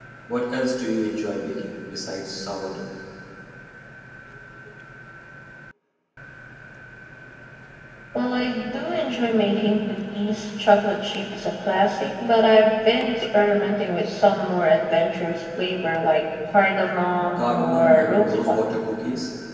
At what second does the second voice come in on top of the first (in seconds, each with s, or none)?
17.4 s